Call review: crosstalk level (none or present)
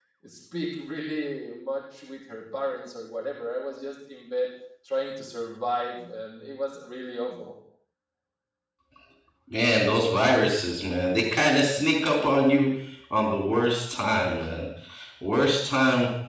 none